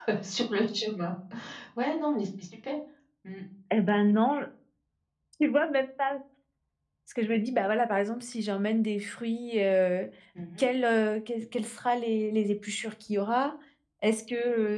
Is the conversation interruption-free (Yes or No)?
Yes